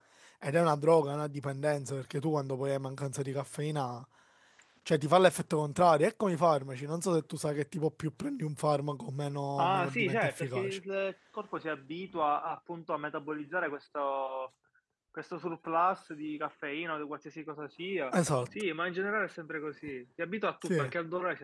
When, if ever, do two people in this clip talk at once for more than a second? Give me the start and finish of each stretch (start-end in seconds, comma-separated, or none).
9.6-10.8